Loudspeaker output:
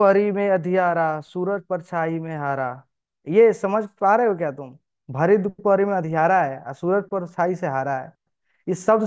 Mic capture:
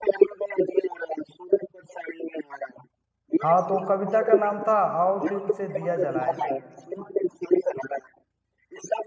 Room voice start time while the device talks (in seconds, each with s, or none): 3.4 s